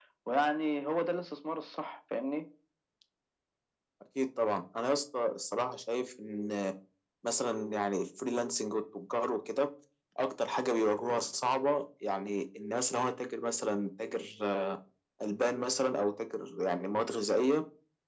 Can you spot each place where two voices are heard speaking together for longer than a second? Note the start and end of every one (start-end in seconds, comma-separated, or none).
none